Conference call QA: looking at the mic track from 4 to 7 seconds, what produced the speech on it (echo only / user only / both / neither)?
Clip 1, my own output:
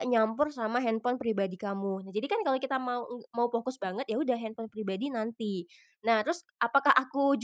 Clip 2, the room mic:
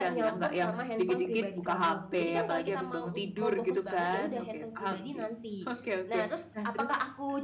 both